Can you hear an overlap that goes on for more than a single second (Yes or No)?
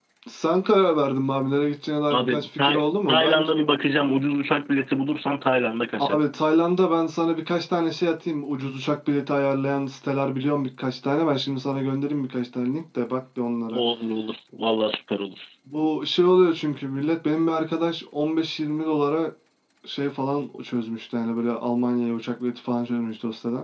Yes